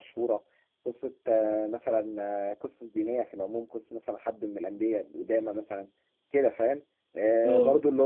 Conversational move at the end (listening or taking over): listening